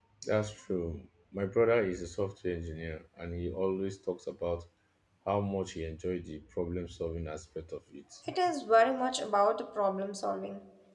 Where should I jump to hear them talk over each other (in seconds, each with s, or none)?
none